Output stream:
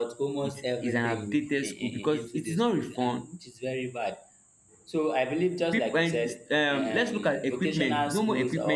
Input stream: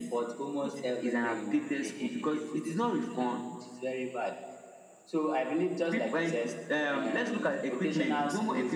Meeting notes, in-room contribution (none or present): none